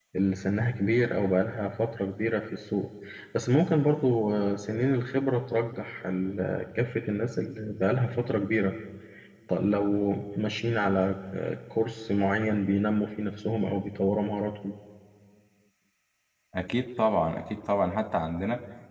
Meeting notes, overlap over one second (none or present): none